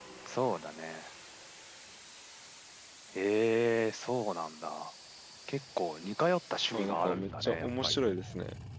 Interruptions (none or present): present